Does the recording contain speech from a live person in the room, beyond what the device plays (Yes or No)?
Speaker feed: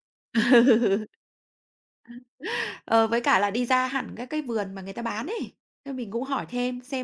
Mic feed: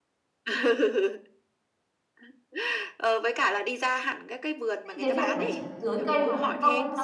Yes